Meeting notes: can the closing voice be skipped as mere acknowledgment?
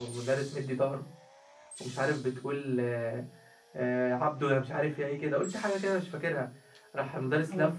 Yes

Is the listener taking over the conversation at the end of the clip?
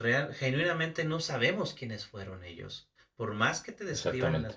No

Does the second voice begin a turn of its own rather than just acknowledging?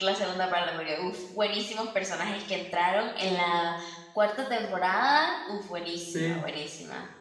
No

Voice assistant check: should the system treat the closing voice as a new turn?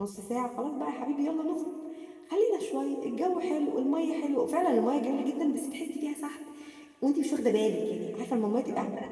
No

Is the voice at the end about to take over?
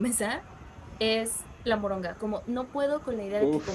No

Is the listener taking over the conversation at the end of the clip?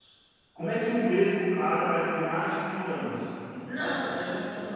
Yes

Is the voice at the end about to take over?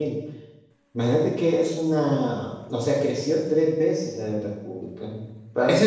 Yes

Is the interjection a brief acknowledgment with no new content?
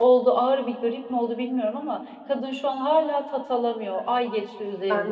No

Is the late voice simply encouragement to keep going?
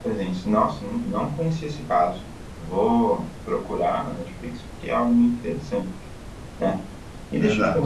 Yes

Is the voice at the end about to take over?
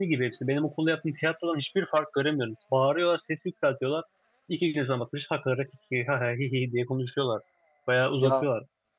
No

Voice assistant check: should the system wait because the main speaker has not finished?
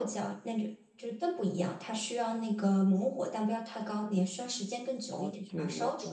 No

